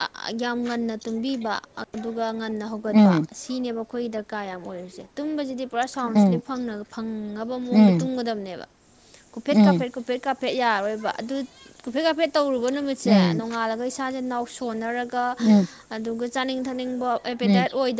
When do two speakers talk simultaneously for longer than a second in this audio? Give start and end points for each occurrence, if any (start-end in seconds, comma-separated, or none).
none